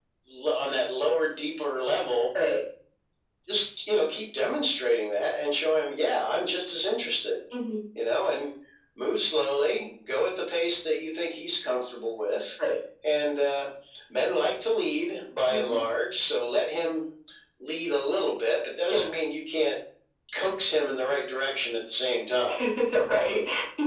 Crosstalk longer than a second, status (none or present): none